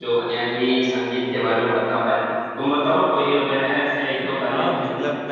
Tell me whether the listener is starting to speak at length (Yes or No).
Yes